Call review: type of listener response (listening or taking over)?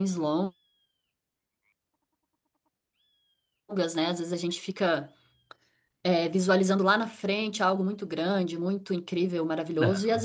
listening